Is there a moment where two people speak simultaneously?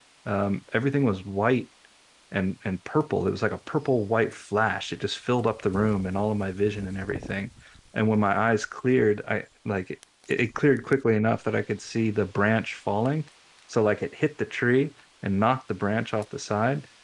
No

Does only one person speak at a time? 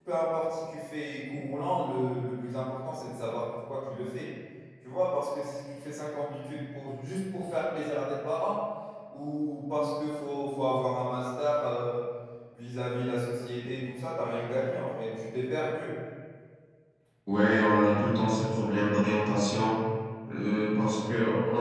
Yes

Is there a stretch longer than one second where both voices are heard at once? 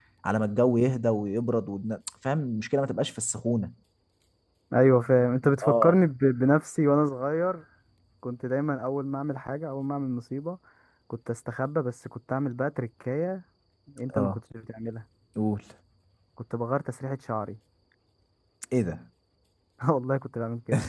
No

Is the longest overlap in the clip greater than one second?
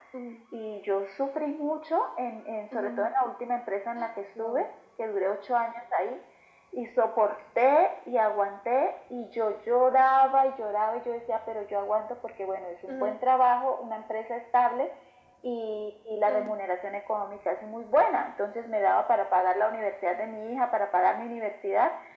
No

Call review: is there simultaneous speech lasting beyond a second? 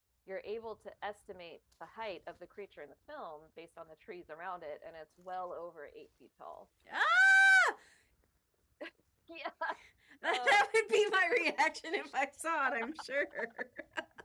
No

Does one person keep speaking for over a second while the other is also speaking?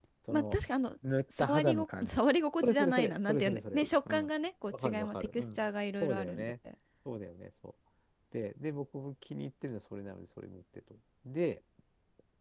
Yes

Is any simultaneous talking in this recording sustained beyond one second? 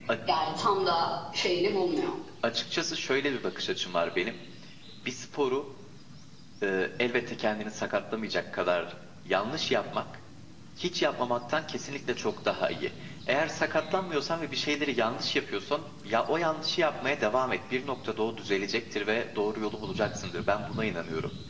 No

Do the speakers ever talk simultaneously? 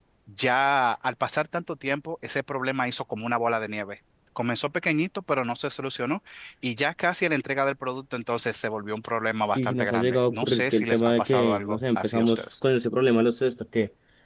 Yes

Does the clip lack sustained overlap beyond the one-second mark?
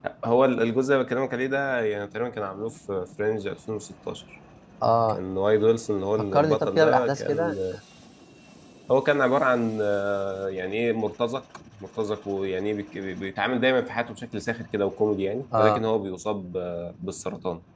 No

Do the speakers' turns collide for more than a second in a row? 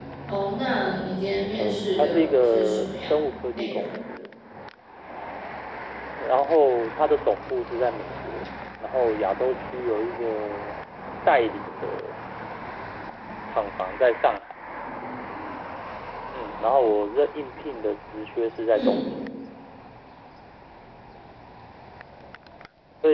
Yes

